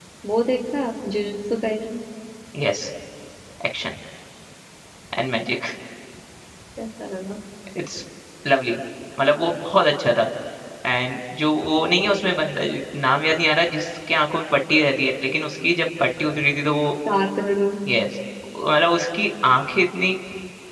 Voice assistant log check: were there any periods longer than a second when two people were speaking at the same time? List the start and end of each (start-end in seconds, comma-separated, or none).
none